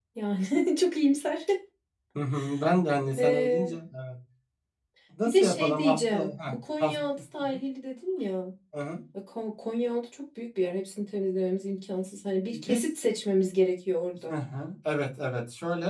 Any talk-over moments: Yes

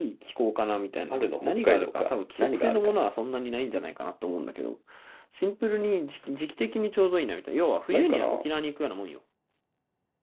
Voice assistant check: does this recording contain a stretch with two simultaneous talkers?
Yes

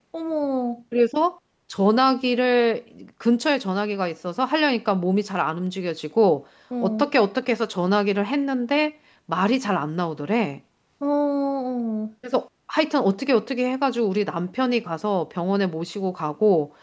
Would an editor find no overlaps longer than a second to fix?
Yes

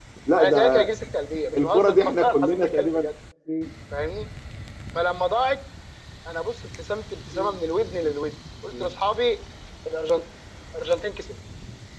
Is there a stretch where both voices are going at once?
Yes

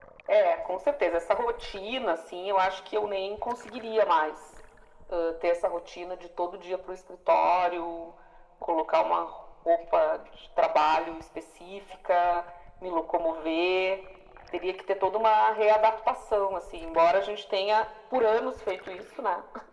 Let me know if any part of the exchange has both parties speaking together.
No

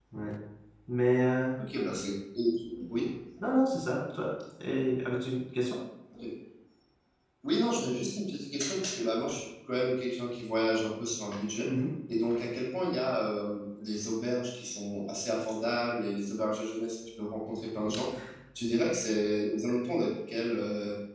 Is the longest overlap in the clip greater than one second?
No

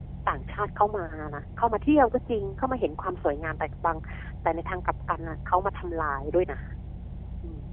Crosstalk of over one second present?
No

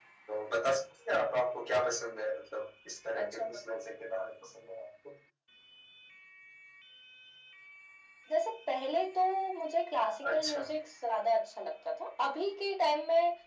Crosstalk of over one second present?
No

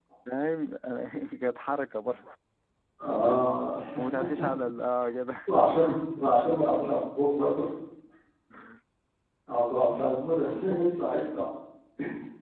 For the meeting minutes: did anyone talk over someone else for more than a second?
No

